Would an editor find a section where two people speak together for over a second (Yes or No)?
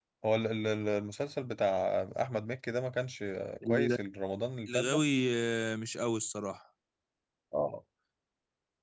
No